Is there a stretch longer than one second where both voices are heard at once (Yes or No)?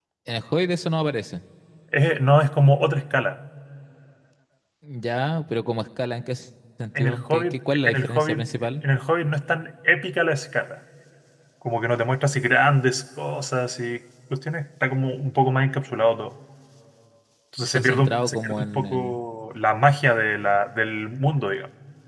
Yes